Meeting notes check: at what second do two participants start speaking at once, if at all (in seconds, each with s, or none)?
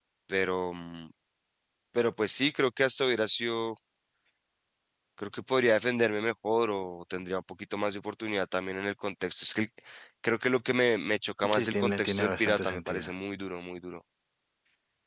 11.4 s